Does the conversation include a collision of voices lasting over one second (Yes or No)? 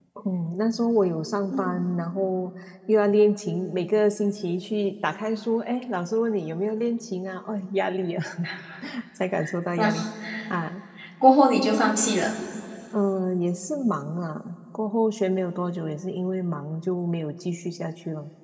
No